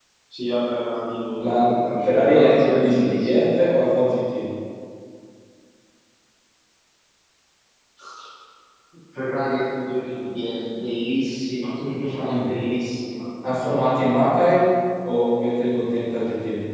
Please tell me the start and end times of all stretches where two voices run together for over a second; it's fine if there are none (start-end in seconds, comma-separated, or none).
1.4-3.4